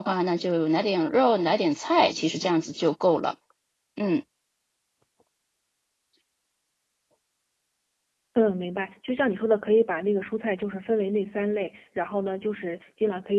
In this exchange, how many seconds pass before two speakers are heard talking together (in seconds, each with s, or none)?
none